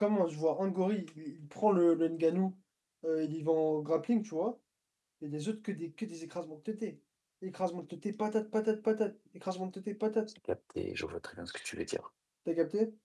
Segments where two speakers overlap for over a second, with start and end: none

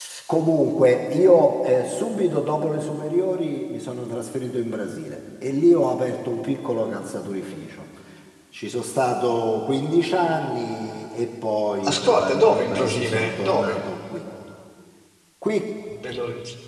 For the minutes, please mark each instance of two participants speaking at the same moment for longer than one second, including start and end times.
11.8-13.8

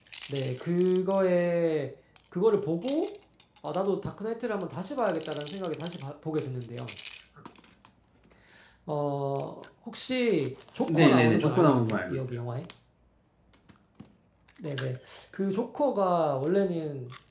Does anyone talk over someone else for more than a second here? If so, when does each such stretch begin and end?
10.9-12.2

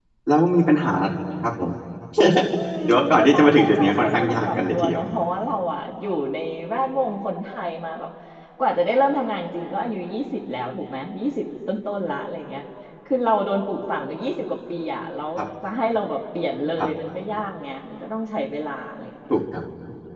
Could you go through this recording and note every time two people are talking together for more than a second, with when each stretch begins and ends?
2.9-5.0

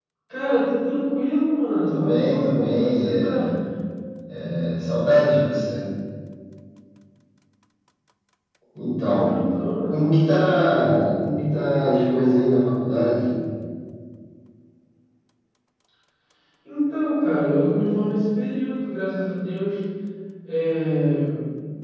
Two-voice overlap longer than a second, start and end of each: 1.9-3.5

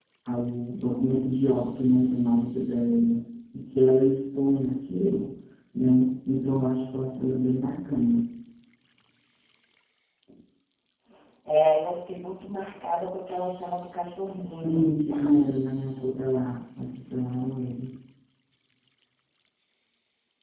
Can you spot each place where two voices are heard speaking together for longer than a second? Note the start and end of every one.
14.5-15.7

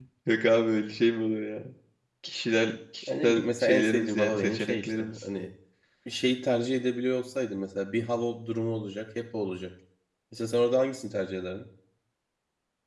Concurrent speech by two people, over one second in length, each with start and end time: 3.0-5.1

